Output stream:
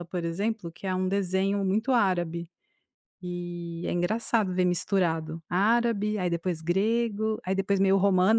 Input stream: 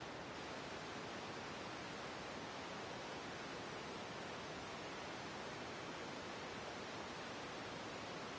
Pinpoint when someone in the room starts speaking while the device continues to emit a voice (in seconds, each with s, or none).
none